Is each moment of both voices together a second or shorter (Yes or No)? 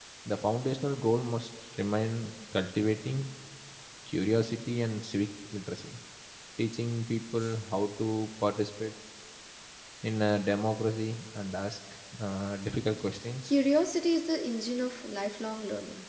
Yes